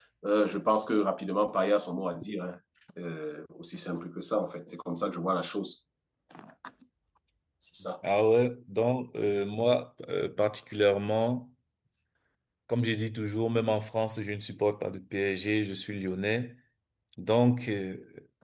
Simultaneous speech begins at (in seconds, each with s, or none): none